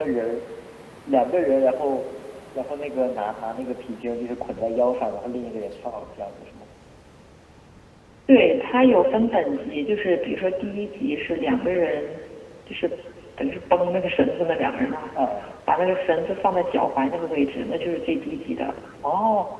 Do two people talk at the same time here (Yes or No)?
No